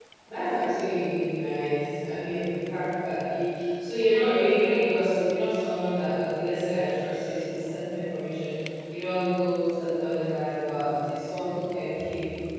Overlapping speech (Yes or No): No